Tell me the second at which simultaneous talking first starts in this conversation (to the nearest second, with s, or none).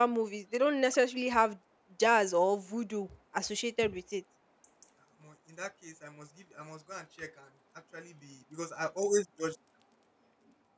none